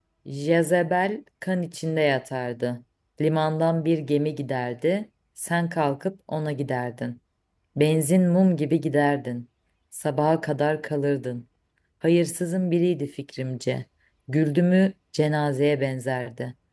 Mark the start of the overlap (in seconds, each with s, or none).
none